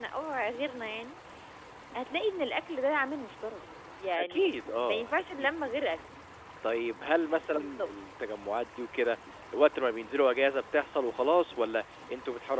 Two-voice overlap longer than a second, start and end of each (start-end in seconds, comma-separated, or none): 4.2-5.5